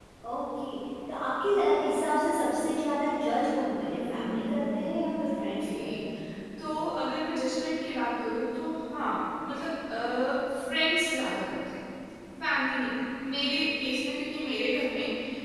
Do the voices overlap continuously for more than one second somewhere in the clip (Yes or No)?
Yes